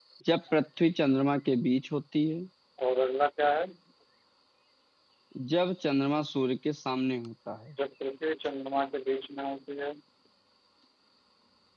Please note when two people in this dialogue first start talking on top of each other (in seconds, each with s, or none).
none